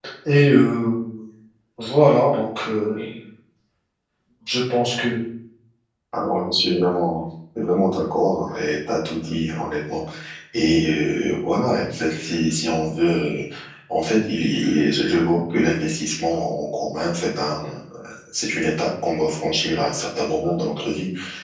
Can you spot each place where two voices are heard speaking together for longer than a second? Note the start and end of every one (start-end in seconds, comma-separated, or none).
none